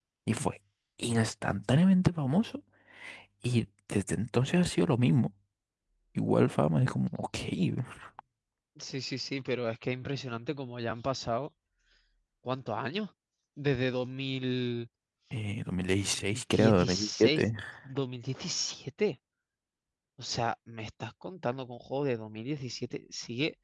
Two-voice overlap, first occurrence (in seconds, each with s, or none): 16.3 s